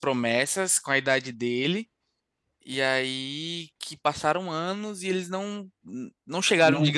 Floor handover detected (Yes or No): No